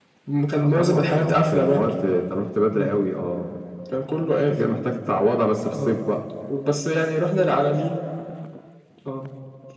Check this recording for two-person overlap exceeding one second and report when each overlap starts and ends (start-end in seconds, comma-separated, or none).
0.6-1.9